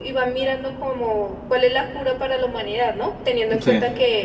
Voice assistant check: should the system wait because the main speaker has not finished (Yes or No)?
Yes